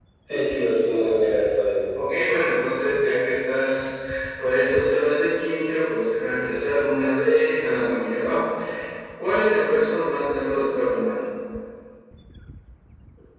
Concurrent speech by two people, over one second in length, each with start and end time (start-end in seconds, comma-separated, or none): none